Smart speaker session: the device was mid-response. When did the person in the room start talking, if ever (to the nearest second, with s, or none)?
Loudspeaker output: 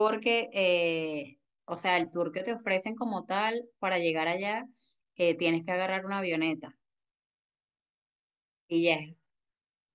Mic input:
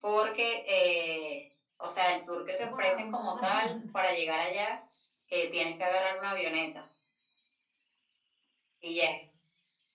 3 s